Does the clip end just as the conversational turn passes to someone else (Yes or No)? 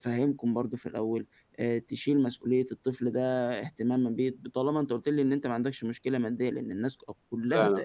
No